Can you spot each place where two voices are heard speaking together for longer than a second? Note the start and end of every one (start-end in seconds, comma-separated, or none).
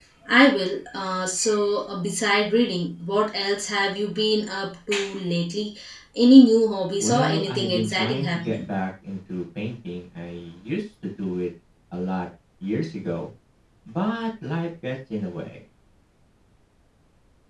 7.0-8.7